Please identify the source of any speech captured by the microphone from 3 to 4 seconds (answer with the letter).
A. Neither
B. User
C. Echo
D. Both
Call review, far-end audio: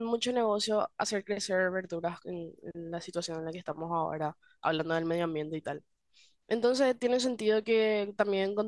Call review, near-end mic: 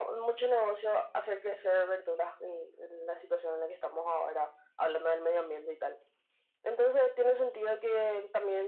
C